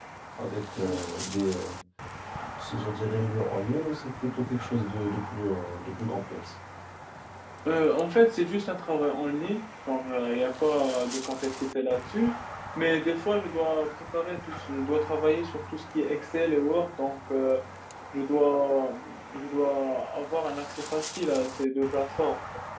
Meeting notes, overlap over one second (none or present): none